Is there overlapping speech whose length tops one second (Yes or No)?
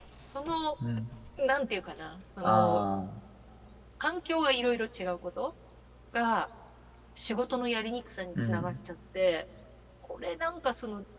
No